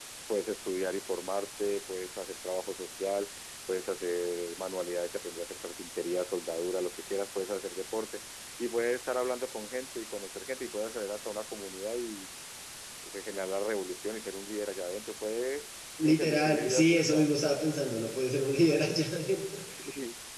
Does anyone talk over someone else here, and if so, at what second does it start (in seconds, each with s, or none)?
16.0 s